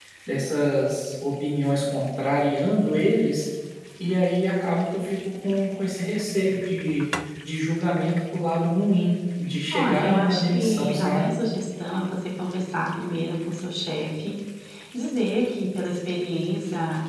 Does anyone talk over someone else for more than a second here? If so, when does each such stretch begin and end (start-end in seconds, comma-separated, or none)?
9.7-11.3